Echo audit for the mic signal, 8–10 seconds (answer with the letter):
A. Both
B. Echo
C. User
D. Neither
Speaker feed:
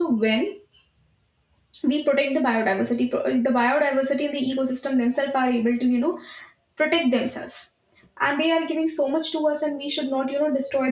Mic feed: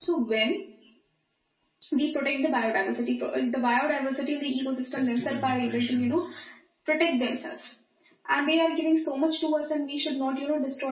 B